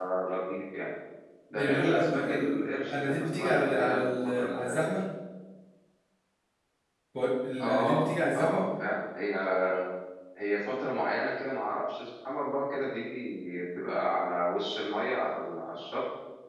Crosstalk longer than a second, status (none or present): present